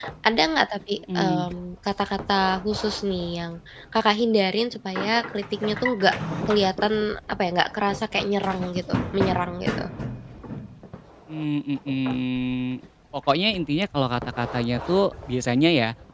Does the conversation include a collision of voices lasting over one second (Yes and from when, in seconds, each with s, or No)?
No